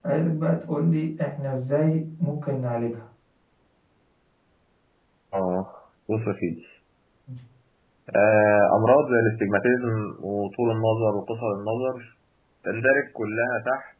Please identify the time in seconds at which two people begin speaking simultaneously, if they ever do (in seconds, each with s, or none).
none